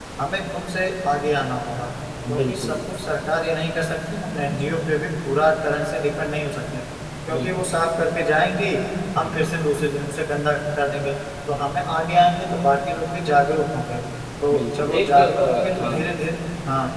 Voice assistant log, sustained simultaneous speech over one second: present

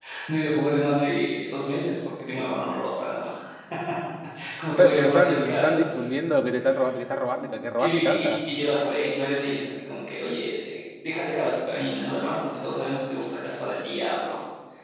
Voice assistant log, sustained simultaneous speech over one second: present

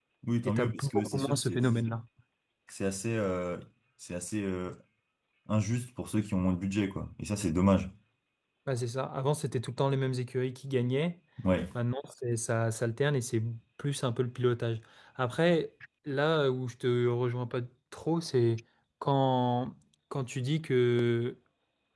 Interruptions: present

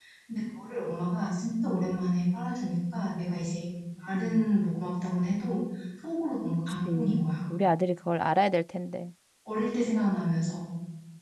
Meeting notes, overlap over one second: none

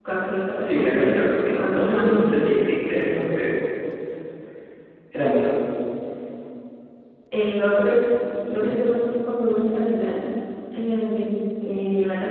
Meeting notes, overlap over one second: present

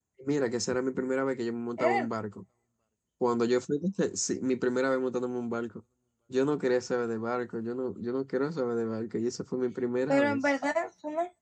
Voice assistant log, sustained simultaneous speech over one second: none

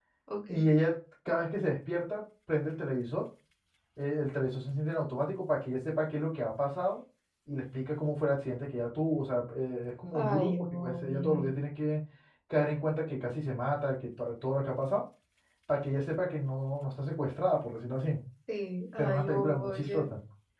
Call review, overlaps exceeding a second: present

